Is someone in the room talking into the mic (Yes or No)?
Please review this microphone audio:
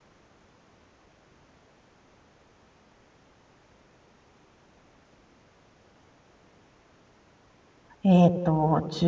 Yes